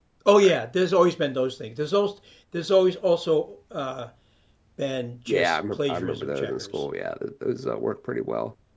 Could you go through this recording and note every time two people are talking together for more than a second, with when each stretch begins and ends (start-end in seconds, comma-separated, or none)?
5.3-6.9